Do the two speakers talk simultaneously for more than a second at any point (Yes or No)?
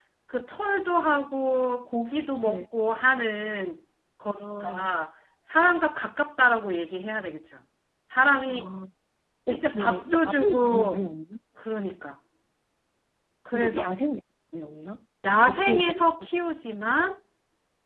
Yes